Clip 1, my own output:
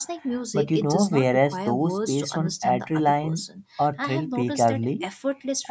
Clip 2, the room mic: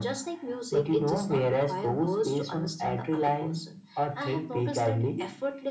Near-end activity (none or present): none